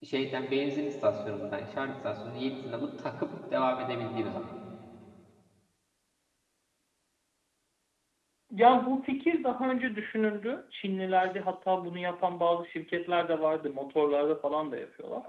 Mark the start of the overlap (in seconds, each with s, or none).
none